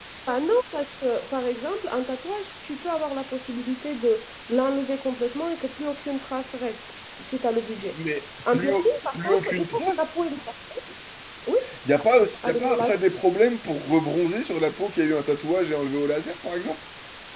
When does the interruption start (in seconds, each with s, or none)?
8.5 s